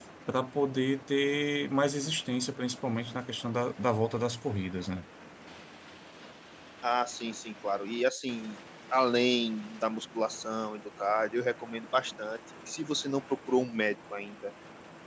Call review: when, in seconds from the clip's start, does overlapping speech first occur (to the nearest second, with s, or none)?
none